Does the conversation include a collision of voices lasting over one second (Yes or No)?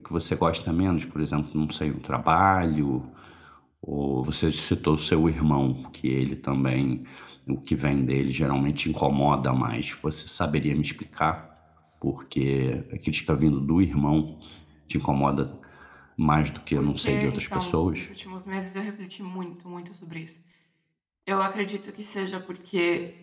Yes